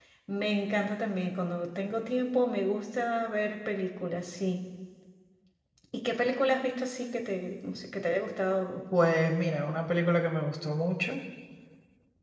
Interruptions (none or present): none